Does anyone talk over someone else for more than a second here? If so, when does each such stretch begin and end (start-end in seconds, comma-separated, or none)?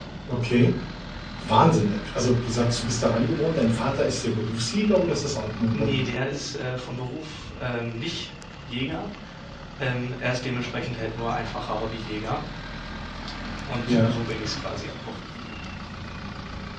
none